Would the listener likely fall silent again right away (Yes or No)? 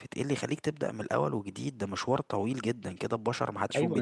No